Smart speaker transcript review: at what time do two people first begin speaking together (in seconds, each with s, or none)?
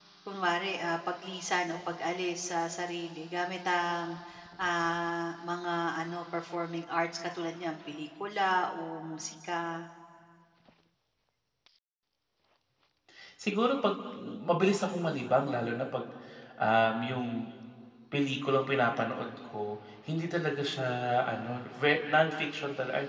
none